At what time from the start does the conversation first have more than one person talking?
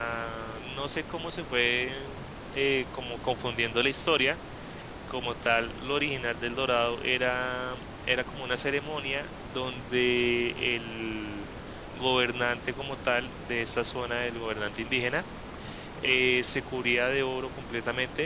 none

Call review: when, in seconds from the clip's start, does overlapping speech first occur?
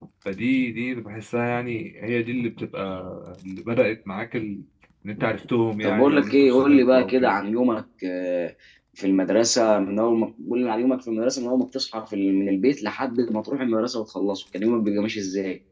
5.8 s

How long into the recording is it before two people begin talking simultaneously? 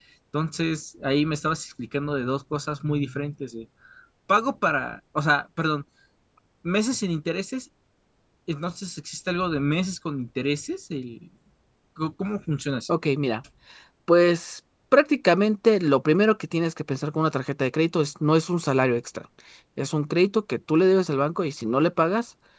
none

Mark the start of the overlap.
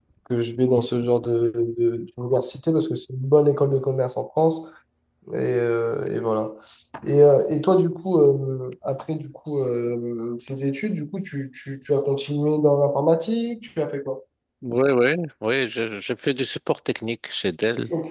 none

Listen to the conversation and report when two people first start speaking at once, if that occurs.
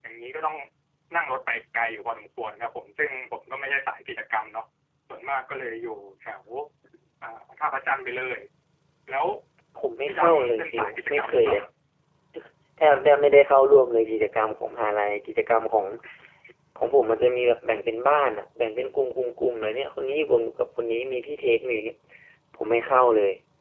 10.1 s

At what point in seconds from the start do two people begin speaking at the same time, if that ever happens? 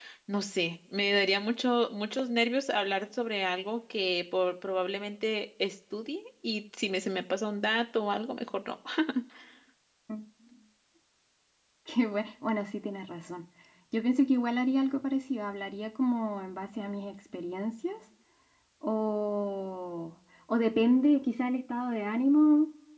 none

